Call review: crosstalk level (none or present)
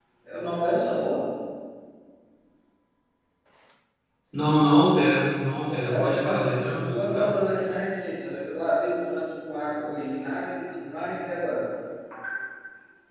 present